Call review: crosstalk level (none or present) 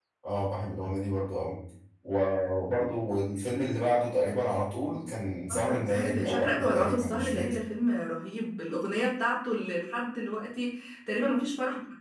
present